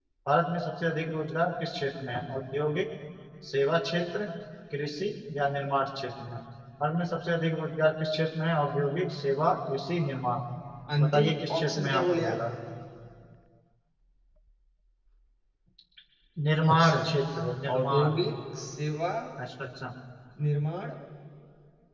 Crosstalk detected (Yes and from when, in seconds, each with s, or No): Yes, from 11.0 s